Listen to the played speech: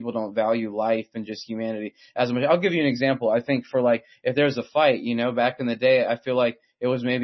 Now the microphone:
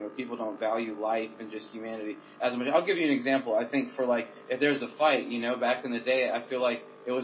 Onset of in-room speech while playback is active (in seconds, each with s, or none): none